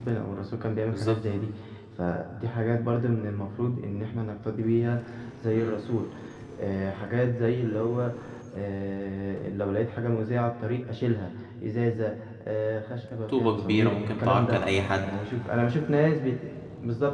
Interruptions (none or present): present